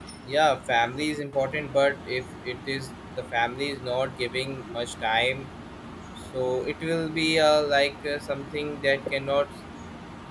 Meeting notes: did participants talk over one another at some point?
No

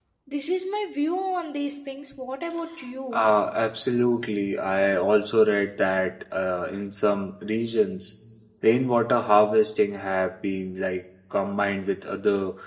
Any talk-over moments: No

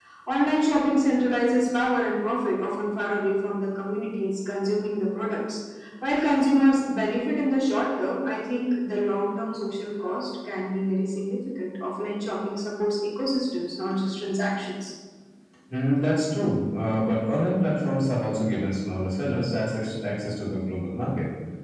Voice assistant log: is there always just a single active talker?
Yes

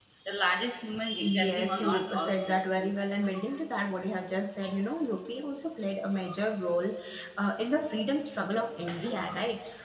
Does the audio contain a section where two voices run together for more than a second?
Yes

